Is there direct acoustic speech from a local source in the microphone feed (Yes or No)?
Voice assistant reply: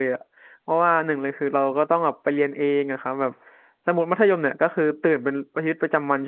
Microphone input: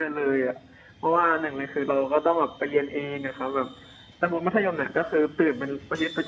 No